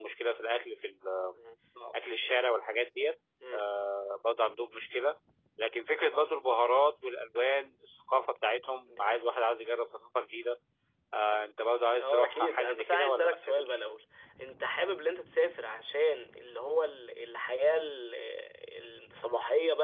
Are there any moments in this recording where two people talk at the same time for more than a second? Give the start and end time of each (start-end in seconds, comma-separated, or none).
12.0-13.8